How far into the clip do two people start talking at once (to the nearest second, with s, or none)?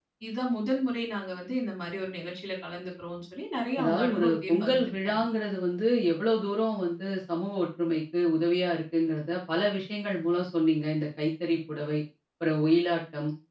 4 s